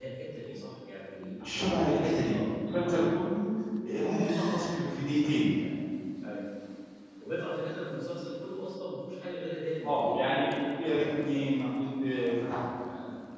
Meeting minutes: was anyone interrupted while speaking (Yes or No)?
Yes